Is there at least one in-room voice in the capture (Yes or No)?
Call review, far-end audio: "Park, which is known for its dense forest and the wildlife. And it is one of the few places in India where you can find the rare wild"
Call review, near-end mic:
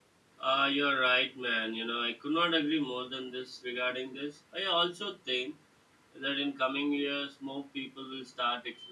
Yes